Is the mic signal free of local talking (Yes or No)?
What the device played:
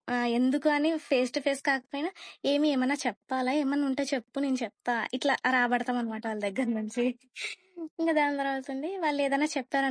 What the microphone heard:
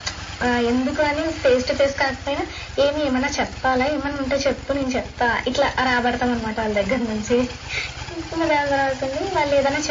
Yes